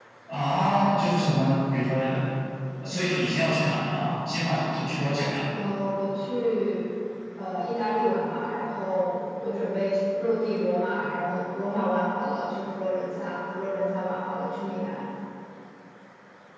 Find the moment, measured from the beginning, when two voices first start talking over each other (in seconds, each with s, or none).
none